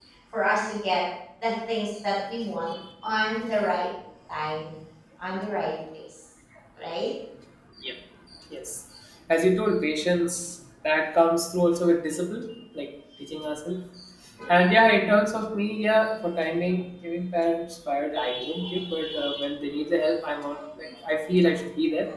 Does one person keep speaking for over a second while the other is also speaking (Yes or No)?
No